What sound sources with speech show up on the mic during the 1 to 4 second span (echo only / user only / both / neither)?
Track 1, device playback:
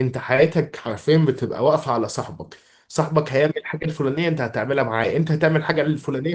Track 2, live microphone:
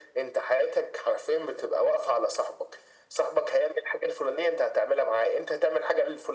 echo only